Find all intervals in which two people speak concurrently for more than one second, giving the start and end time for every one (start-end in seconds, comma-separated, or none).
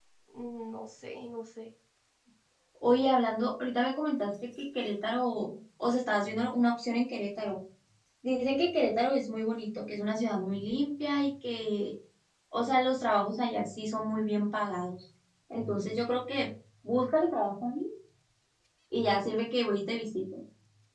none